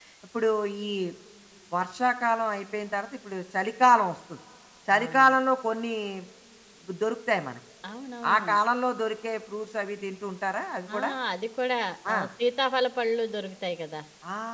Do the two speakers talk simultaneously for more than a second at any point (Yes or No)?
No